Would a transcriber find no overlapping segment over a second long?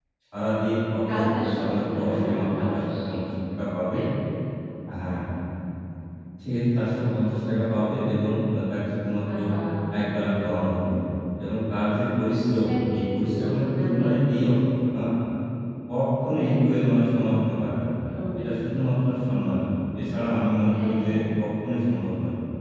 No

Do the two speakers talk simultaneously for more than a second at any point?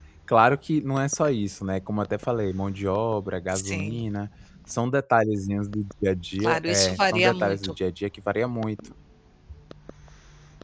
Yes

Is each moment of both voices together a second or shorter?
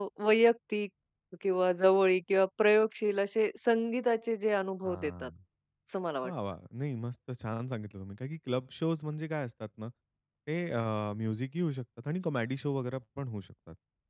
Yes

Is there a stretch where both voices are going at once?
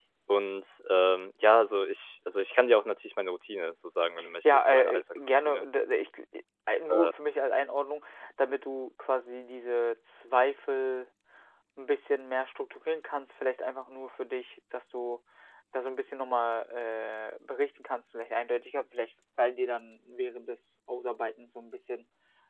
Yes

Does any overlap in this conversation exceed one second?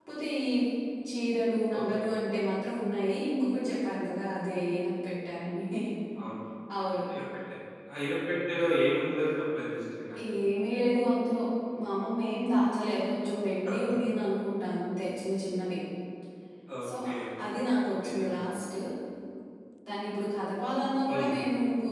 No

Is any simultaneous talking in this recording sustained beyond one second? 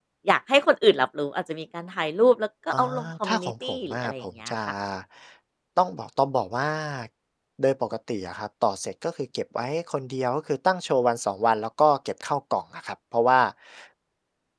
Yes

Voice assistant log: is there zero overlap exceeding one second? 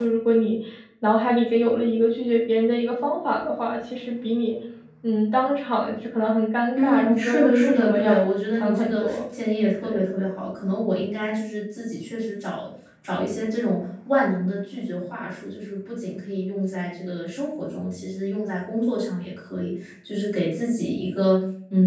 No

